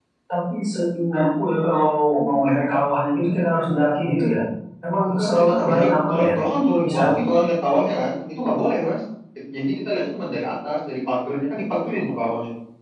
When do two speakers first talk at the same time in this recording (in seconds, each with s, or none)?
5.0 s